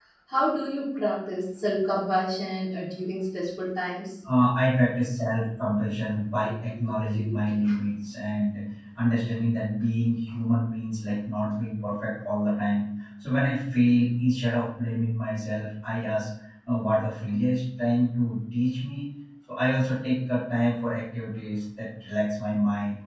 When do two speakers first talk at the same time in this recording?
none

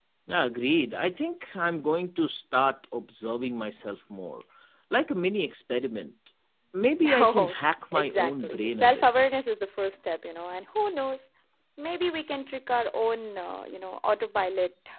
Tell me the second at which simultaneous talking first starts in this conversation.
7 s

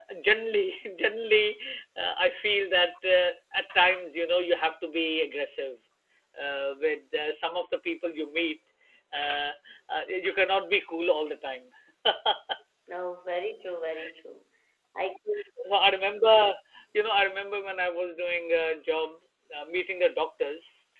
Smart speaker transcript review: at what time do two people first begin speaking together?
none

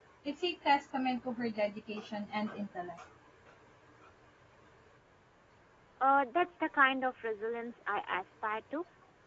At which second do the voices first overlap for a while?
none

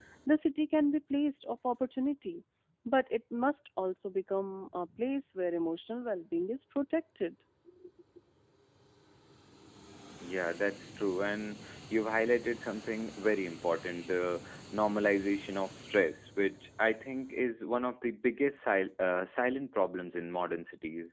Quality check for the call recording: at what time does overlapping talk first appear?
none

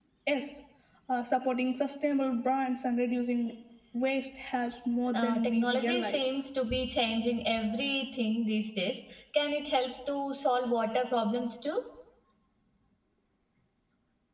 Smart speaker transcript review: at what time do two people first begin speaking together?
5 s

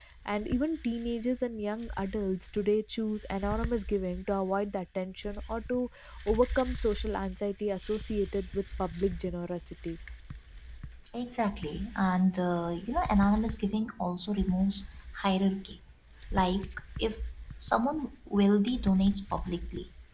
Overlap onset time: none

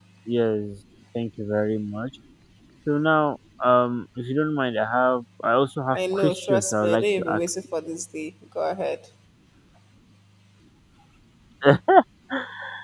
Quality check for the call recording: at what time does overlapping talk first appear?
6 s

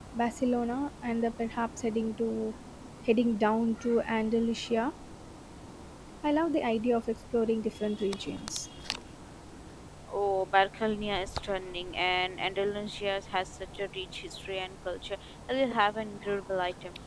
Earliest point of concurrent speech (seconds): none

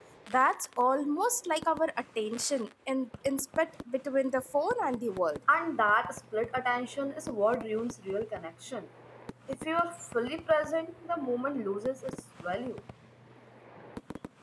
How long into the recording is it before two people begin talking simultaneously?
none

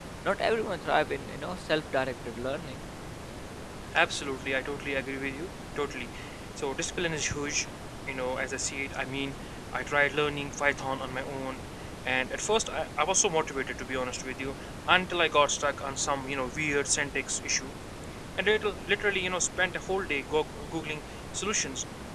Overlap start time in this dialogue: none

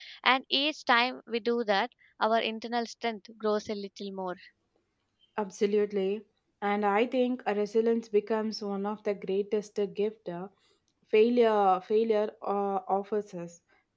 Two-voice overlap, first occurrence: none

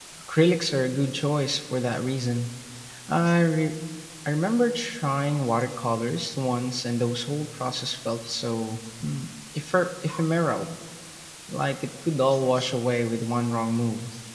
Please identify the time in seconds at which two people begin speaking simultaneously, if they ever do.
none

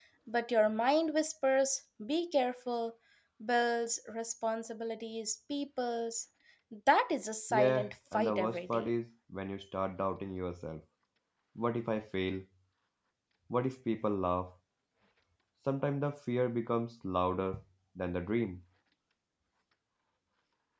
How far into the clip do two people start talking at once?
8 s

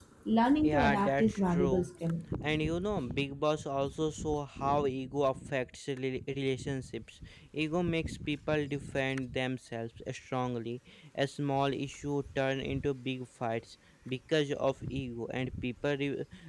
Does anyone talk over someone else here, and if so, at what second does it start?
1 s

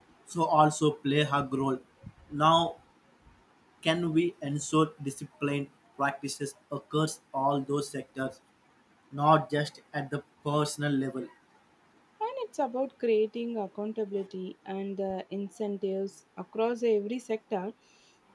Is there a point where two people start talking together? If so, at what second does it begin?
none

